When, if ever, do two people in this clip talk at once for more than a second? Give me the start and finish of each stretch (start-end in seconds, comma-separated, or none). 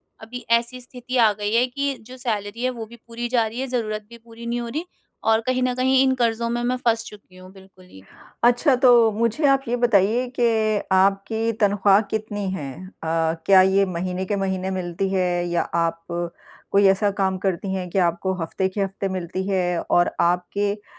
none